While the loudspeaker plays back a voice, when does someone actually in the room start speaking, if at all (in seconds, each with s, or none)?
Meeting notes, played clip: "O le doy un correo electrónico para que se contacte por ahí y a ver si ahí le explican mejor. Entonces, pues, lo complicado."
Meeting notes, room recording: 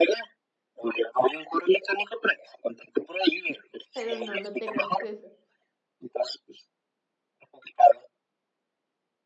3.9 s